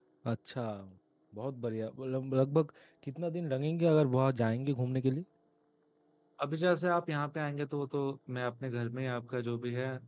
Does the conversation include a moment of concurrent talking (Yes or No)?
No